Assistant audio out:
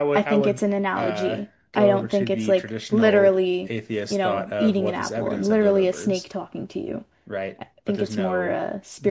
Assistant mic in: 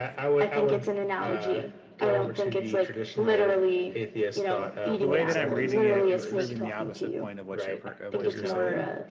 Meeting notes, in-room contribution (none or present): present